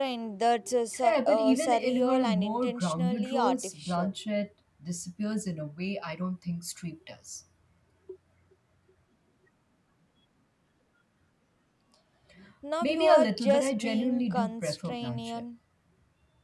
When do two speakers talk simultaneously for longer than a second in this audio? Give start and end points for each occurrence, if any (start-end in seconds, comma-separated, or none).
0.9-4.1, 12.8-15.4